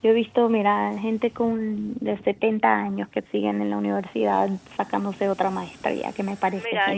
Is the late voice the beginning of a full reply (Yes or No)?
Yes